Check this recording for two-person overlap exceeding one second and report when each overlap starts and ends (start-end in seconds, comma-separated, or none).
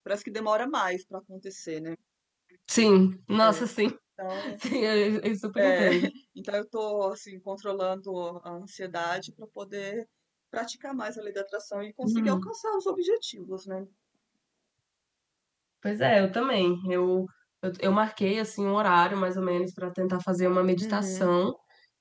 none